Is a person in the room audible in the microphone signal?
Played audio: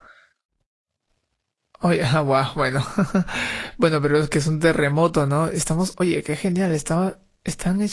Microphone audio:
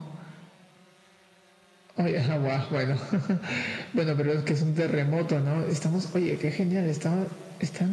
No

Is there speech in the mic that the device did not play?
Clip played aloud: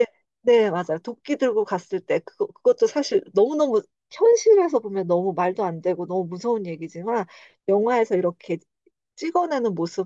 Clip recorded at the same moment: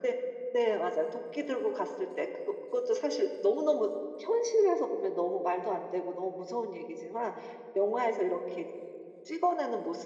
No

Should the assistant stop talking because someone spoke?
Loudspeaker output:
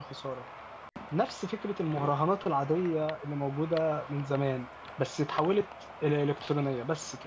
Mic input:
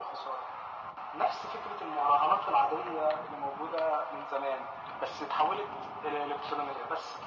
No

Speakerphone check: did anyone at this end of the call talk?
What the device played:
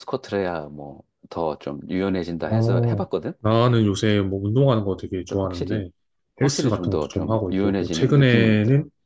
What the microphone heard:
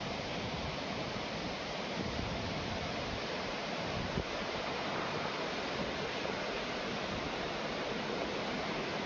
No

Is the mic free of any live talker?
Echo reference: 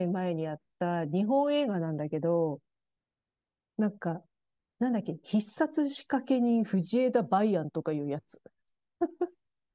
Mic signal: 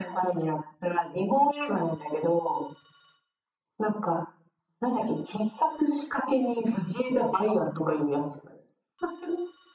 Yes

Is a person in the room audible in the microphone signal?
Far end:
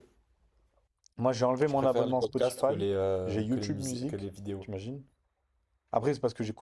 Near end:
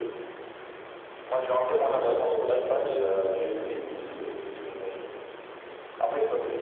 No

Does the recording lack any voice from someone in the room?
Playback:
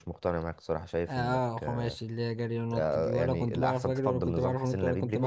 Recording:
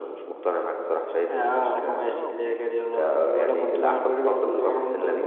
No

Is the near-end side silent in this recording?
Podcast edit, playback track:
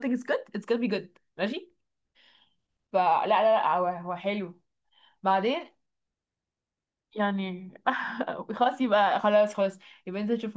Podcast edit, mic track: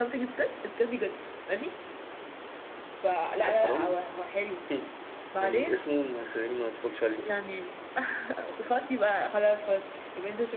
No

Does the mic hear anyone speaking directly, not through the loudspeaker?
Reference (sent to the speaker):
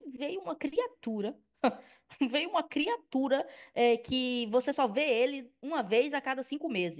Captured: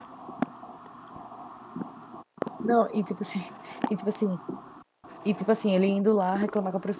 Yes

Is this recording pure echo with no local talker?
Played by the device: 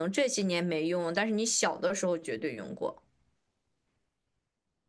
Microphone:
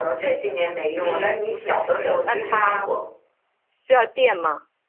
No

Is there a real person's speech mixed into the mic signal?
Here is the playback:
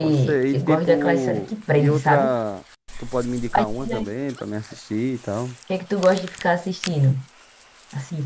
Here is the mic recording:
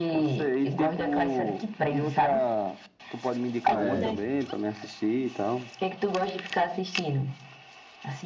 Yes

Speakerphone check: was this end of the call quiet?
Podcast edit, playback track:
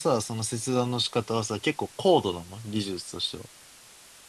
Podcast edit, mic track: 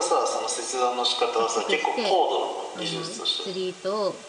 No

